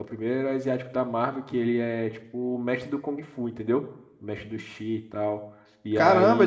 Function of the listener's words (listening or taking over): taking over